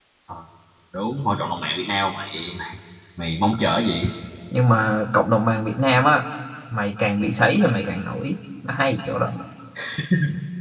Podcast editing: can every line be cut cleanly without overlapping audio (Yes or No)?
Yes